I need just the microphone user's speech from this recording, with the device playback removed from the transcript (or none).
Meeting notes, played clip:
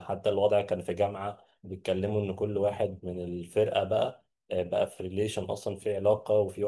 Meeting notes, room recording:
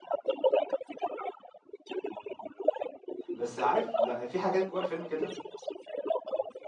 بس عارف لأ، في حاجات جوّه الفيلم كده